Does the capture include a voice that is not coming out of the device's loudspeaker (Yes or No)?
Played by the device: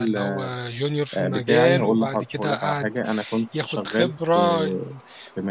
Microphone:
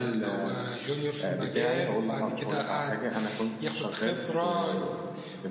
No